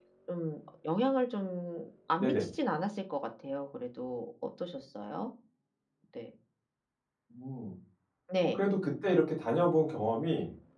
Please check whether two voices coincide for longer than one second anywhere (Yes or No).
No